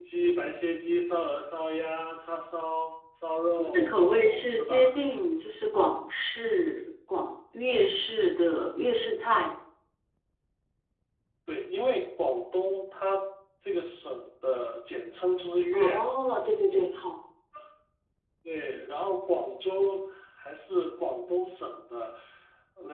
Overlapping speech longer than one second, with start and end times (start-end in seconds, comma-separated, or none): 3.5-4.9